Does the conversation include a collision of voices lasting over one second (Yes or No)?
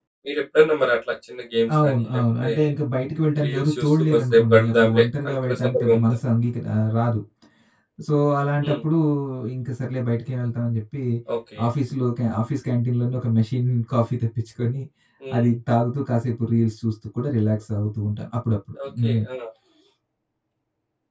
Yes